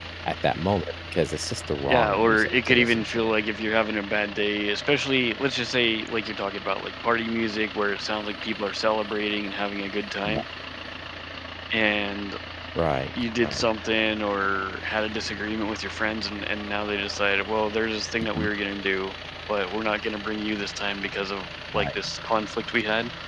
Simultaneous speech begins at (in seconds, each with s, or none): 1.9 s